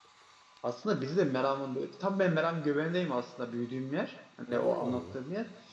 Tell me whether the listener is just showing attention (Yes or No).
Yes